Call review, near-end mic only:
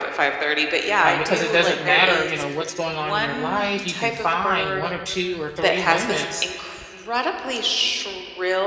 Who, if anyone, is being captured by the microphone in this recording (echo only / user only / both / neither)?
both